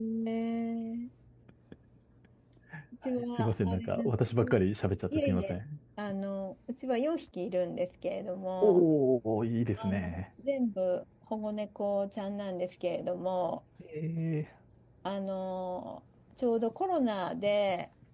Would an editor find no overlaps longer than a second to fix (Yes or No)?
No